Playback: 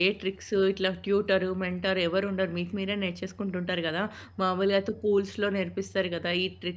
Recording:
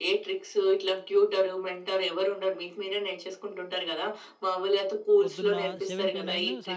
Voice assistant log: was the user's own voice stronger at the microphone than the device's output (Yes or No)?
No